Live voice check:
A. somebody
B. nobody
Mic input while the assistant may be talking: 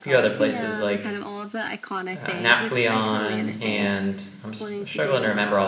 A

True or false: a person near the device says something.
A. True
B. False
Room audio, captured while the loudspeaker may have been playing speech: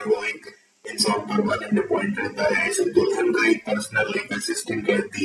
B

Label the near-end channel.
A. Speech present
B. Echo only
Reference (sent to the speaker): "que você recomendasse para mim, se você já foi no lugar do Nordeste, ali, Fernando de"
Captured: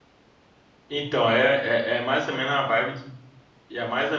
A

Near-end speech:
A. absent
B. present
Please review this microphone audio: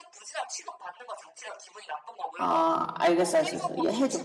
B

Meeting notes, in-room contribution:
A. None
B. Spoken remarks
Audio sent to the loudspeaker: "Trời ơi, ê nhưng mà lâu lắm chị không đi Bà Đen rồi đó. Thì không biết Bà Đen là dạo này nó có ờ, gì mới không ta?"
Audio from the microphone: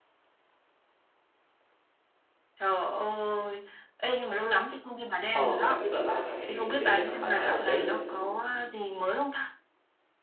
B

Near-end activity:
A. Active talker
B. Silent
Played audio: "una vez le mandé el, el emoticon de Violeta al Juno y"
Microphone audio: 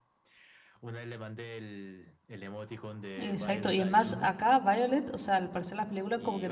A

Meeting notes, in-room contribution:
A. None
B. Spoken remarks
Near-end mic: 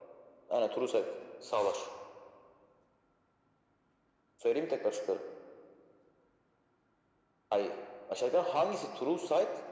A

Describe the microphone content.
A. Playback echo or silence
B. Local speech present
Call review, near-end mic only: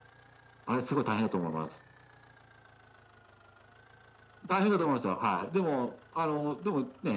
A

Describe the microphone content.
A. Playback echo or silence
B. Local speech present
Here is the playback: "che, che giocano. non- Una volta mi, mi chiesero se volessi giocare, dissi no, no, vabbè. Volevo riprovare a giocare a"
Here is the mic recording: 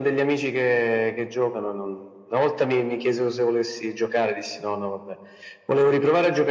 A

